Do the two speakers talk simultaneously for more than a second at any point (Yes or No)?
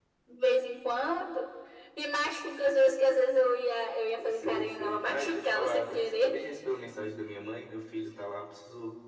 Yes